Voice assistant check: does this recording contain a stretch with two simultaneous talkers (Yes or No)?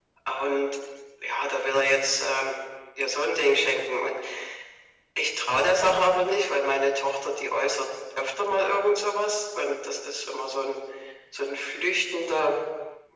No